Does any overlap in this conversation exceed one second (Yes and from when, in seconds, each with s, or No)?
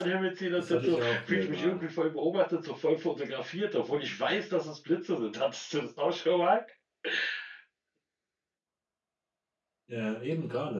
Yes, from 0.6 s